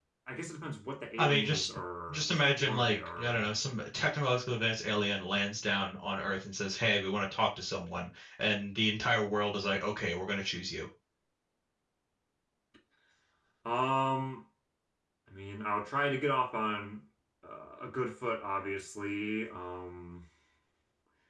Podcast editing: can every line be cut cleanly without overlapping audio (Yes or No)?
No